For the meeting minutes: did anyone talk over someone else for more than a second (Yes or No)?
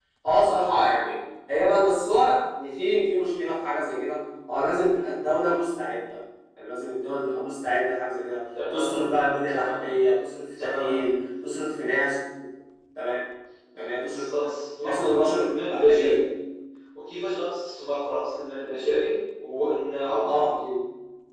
Yes